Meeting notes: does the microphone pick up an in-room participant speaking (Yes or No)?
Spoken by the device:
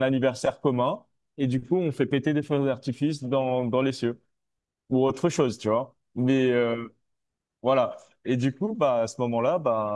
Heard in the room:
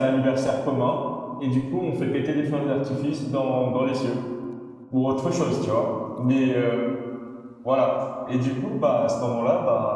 No